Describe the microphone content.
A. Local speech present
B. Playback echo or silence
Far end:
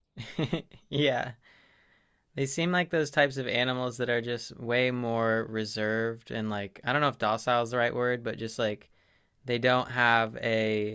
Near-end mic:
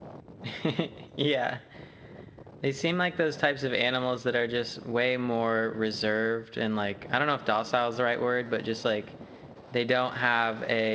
B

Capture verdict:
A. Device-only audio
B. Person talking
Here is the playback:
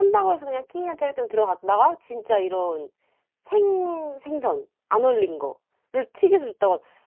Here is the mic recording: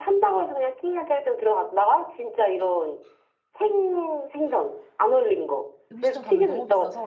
B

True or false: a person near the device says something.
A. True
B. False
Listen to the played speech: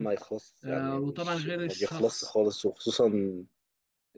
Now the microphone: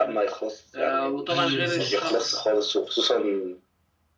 A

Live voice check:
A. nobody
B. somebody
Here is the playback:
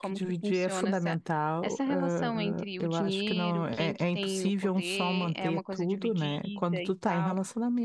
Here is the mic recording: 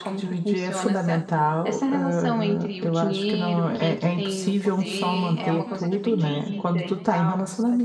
B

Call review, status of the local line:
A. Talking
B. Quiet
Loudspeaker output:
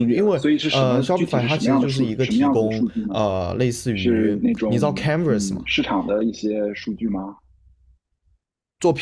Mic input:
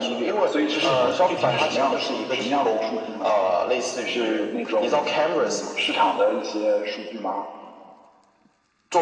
A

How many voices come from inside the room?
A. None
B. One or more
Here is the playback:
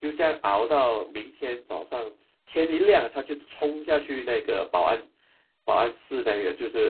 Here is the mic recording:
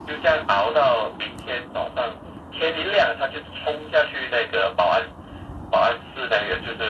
A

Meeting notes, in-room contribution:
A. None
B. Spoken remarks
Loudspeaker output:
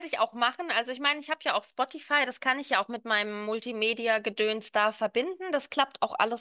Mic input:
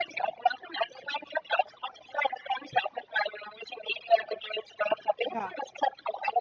B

